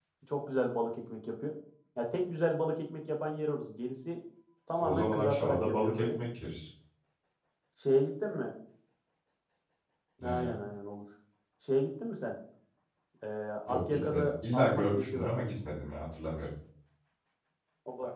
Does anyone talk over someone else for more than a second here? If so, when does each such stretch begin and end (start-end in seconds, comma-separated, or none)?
4.8-6.2, 13.7-15.3